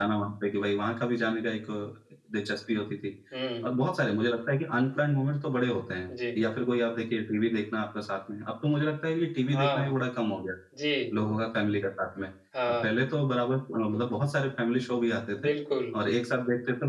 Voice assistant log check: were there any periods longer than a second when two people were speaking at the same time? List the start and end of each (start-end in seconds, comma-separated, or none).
none